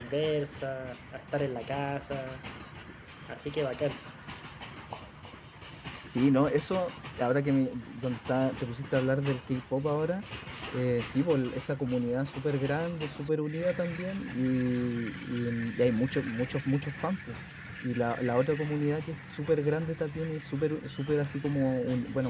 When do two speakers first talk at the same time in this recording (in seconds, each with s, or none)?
none